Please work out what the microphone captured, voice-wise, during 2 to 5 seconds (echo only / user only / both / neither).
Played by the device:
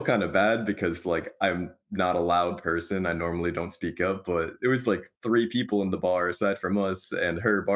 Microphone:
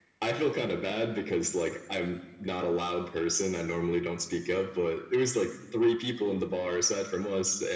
echo only